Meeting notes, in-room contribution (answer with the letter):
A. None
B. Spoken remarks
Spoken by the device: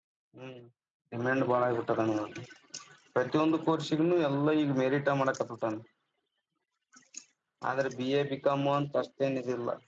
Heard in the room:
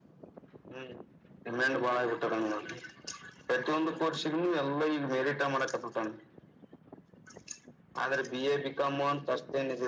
A